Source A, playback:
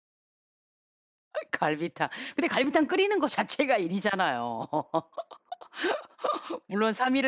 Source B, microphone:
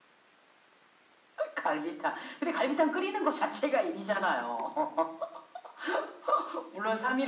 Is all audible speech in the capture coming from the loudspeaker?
Yes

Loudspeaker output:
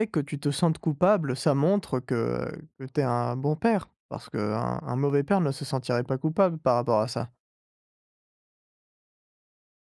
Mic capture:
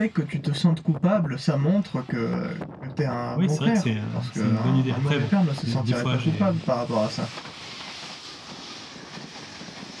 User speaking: Yes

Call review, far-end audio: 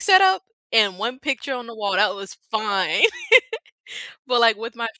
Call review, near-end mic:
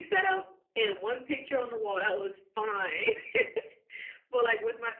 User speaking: No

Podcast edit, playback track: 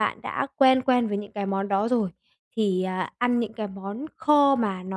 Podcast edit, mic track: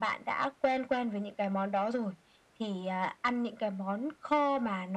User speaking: No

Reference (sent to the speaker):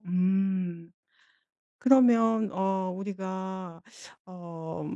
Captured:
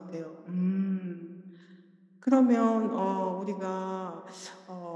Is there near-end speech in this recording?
No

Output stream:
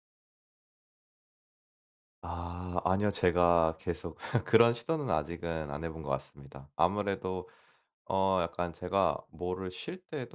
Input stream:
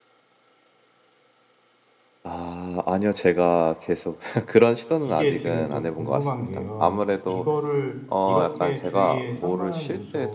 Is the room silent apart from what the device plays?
No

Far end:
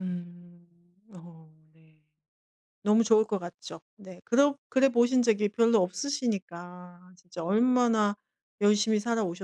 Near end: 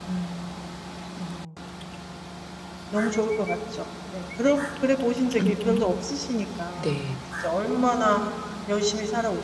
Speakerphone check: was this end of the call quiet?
No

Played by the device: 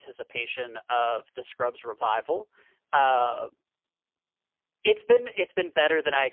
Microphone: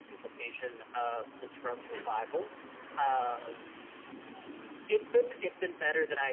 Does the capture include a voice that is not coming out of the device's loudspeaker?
No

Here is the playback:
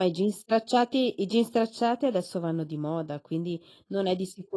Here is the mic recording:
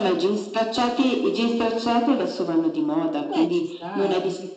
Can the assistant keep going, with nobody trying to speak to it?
No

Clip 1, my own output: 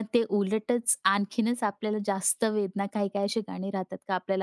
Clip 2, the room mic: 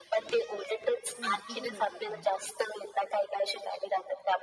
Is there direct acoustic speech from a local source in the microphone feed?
Yes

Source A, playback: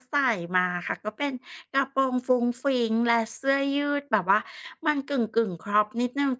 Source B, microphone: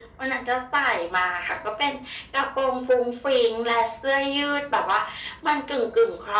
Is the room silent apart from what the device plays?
Yes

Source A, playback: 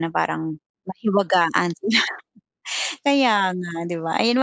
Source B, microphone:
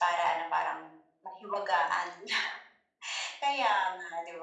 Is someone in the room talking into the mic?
No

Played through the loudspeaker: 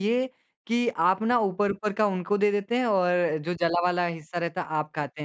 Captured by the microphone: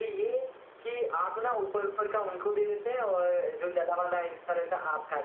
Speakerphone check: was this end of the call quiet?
Yes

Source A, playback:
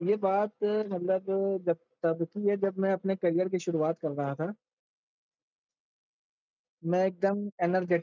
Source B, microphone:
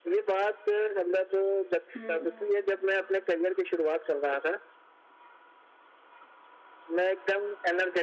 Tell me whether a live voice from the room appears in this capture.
Yes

